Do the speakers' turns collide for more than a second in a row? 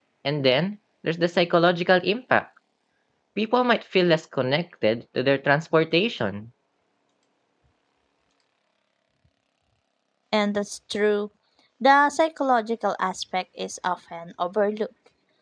No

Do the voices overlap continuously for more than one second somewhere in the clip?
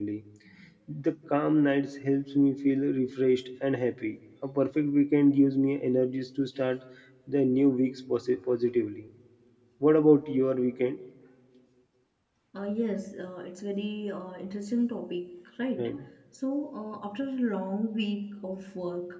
No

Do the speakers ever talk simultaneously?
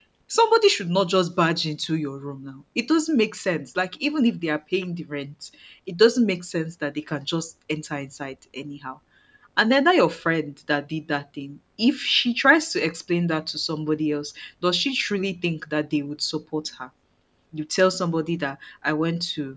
No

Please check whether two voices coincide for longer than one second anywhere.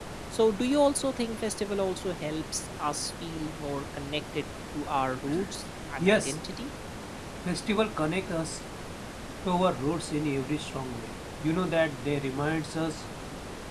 No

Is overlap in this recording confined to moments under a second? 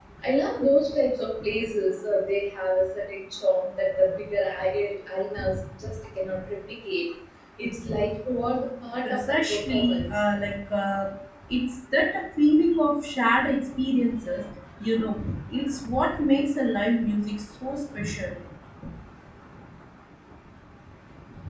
No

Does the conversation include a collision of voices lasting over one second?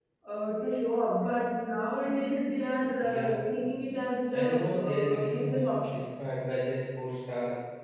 Yes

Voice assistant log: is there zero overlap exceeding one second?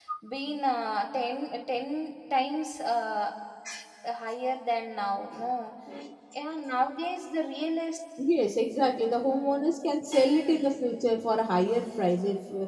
Yes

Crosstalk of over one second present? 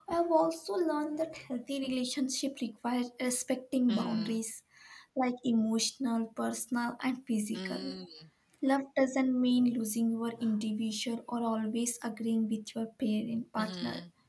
No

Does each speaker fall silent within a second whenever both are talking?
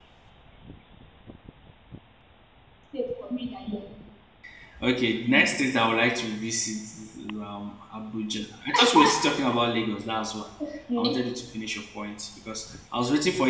Yes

